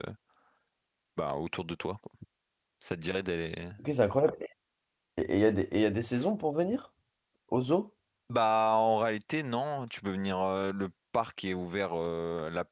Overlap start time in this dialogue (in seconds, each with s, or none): none